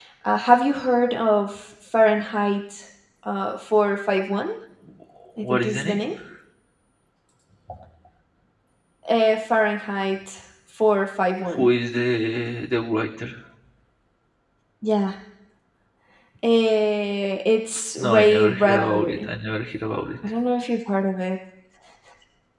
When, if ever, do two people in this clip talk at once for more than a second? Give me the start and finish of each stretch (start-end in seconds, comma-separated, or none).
18.0-19.3